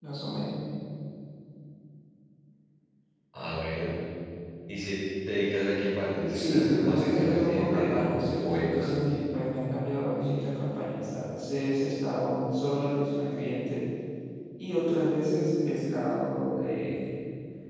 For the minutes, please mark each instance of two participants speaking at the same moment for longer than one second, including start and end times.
6.3-9.2

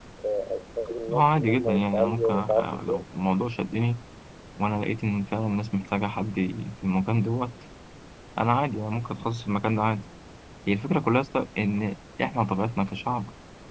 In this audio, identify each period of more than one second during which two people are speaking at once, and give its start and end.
1.1-3.0

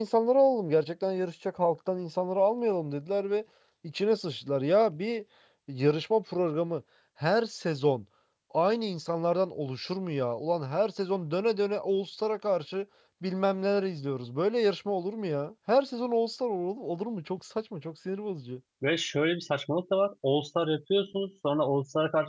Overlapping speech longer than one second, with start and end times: none

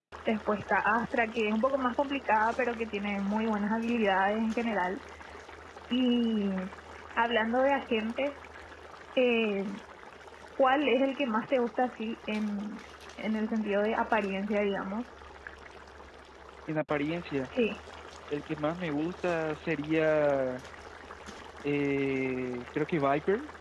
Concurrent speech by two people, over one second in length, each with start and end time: none

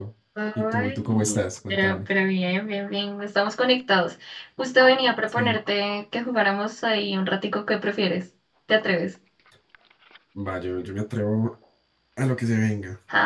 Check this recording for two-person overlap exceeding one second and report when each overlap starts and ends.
0.6-2.1

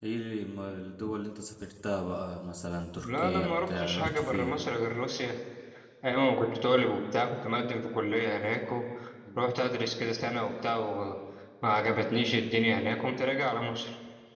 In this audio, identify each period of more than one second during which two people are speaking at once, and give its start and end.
3.0-4.5

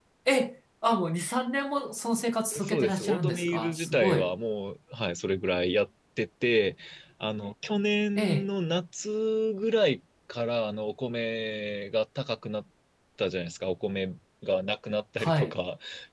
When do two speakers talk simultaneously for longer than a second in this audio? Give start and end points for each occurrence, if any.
2.6-4.3

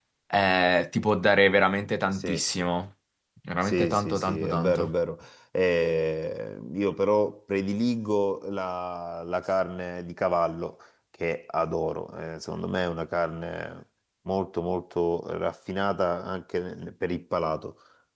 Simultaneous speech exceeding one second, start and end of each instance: 3.6-4.9

